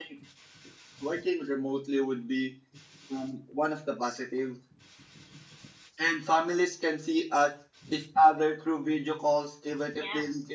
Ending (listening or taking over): listening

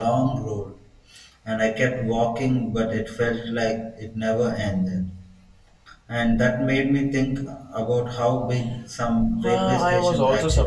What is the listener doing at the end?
taking over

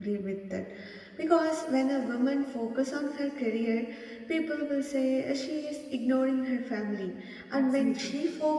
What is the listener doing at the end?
listening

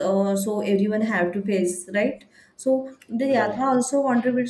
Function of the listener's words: listening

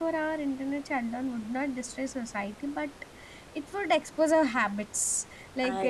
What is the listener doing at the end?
listening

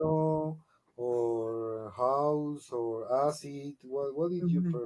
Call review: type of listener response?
taking over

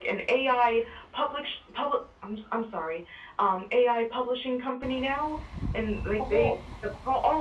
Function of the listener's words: listening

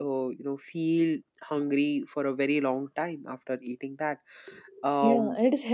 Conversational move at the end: taking over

